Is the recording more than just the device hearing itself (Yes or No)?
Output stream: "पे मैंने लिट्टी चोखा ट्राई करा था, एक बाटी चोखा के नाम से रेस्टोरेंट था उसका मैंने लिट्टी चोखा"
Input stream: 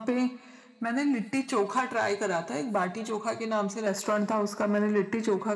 No